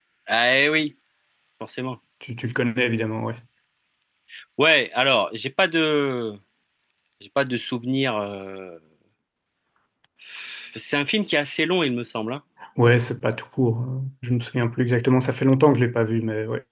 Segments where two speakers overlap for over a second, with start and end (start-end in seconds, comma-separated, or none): none